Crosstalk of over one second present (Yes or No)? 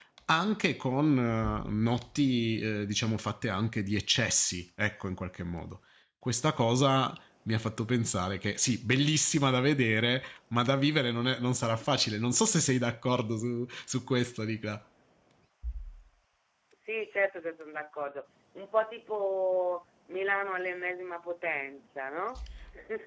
No